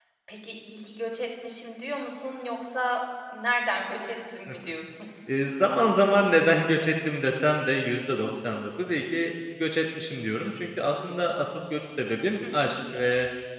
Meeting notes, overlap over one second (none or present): none